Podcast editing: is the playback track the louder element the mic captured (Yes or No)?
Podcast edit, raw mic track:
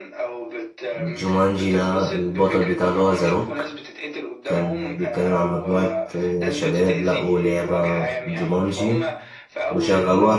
No